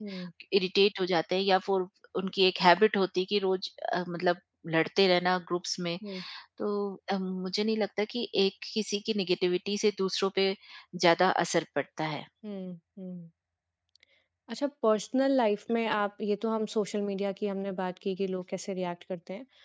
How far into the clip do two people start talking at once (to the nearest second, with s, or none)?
none